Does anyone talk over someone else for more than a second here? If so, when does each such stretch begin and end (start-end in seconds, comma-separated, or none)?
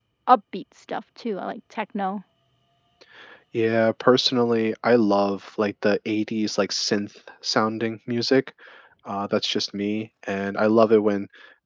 none